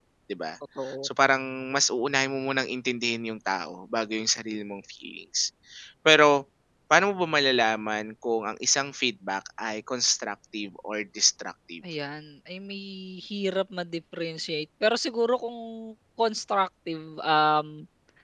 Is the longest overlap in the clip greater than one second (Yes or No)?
No